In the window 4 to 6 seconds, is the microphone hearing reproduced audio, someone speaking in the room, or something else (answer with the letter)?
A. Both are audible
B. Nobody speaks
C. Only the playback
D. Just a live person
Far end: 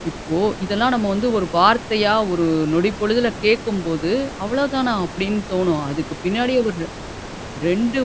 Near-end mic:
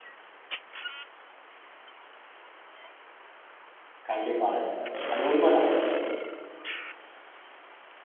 D